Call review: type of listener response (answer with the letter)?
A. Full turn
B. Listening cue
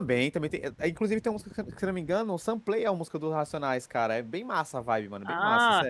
A